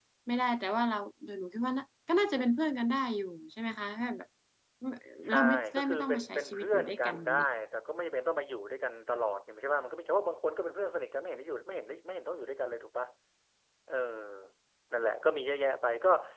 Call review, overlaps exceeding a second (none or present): present